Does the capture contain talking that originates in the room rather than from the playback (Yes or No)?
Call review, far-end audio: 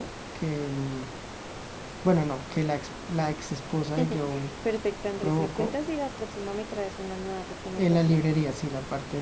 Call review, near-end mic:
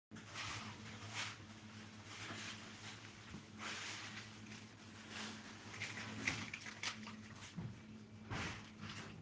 No